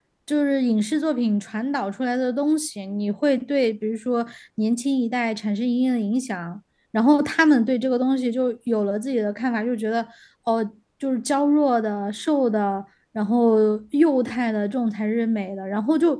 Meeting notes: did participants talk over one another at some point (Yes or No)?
No